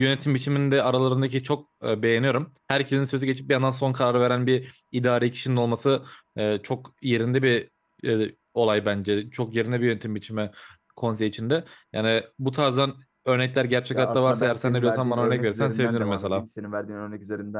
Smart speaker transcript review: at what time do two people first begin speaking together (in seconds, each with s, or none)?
13.9 s